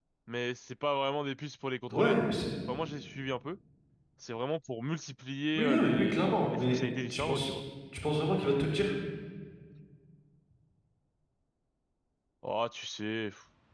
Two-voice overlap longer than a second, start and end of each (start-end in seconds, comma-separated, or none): 5.5-7.5